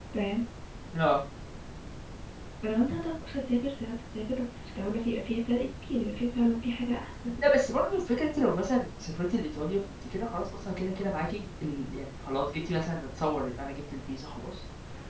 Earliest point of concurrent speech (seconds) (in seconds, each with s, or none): none